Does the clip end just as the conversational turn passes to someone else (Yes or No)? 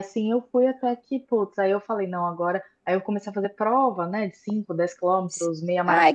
Yes